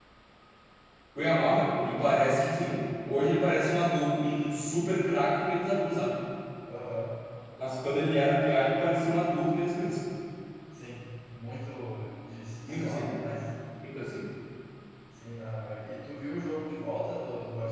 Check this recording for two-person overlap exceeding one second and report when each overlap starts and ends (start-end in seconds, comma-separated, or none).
none